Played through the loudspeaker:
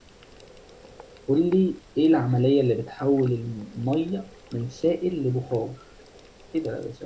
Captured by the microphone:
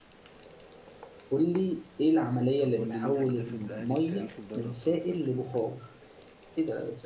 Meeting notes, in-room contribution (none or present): present